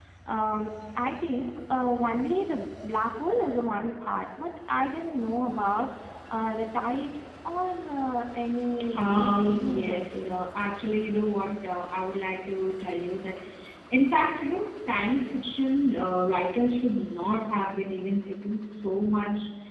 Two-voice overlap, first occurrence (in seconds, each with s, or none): 8.8 s